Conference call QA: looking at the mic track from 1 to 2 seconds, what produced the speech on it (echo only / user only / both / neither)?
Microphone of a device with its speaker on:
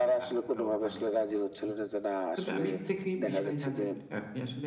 both